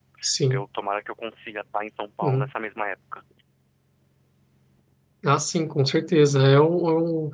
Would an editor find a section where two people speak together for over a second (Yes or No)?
No